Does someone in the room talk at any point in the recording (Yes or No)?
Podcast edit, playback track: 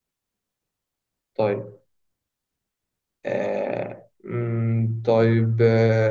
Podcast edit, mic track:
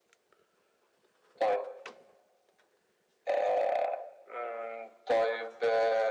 No